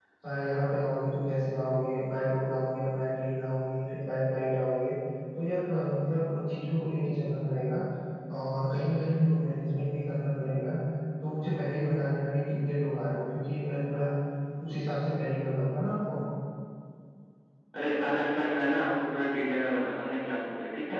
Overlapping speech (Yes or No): No